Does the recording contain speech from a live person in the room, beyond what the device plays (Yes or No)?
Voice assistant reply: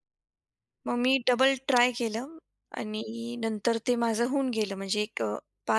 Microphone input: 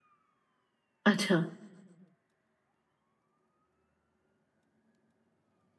Yes